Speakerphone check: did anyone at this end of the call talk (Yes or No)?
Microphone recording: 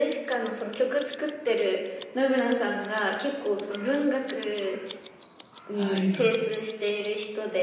Yes